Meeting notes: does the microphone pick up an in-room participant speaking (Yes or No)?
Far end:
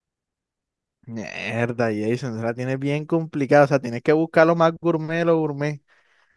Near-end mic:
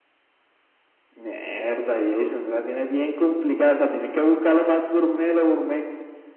No